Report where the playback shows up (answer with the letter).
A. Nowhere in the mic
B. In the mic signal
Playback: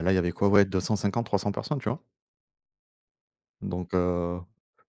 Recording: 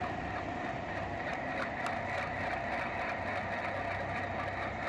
A